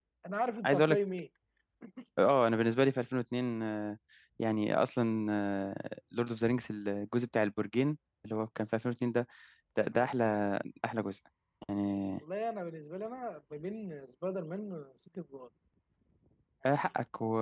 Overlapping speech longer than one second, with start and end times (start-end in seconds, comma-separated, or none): none